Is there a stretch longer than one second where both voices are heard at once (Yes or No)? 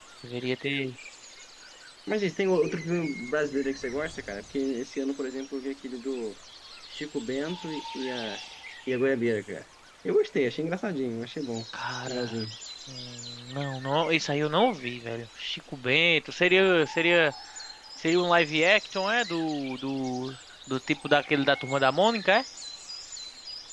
No